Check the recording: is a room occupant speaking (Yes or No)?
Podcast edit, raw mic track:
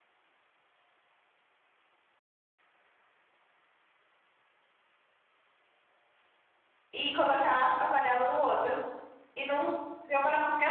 Yes